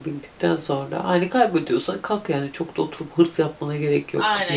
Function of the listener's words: taking over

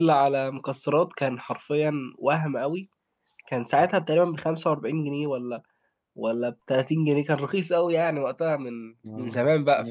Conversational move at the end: taking over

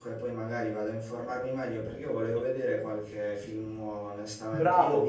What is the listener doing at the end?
listening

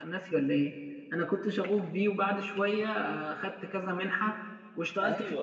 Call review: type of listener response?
taking over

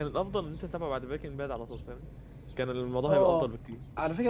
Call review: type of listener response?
taking over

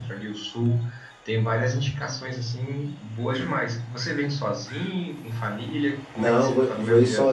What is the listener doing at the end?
taking over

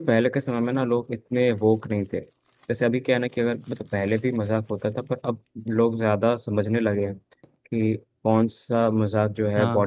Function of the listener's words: listening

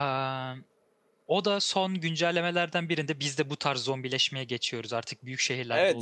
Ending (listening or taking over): taking over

